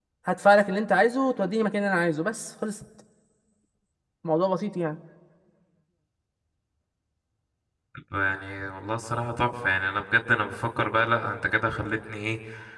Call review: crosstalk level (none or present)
none